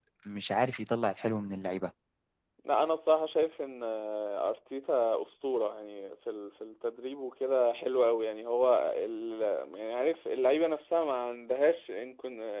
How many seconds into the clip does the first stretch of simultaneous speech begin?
none

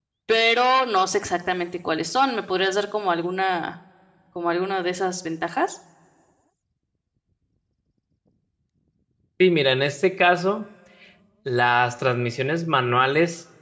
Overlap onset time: none

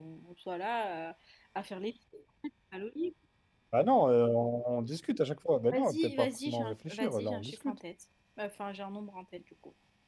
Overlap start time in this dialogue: 6 s

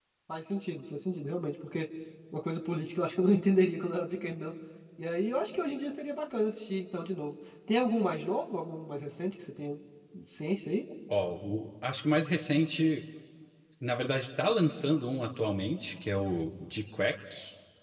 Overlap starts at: none

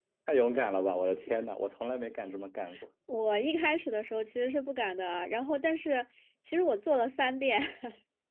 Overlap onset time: none

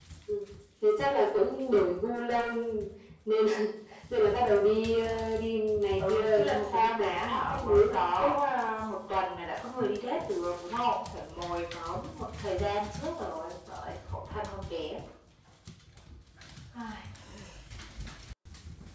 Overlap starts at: 6 s

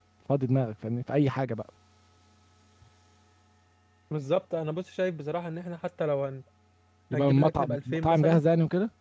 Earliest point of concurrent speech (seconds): 7 s

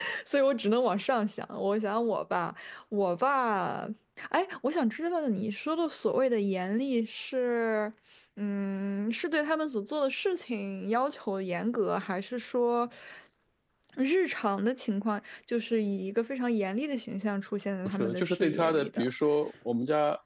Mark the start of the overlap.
18 s

